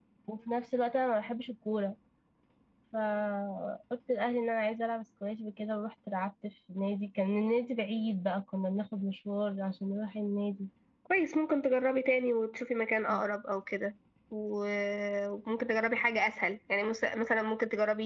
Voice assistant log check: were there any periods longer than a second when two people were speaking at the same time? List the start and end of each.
none

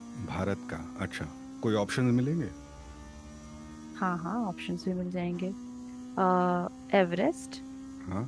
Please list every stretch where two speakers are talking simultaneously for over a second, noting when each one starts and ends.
none

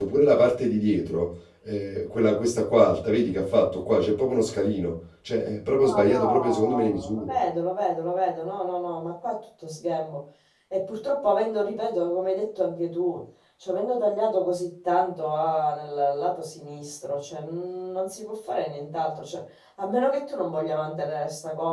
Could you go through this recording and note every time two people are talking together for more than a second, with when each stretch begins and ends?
5.9-7.3

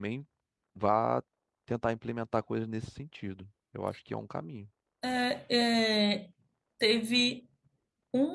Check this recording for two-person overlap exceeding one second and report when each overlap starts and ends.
none

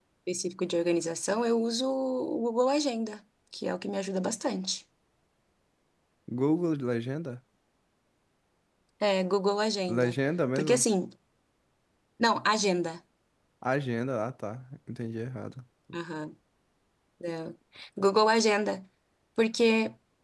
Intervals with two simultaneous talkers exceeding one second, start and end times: none

